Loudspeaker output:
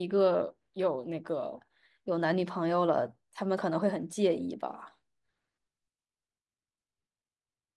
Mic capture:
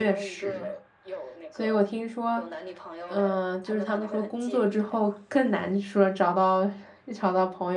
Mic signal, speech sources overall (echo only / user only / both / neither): both